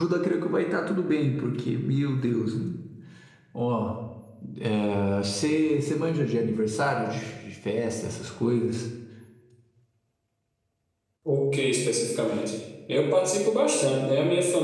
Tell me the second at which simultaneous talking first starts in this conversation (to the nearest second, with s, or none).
none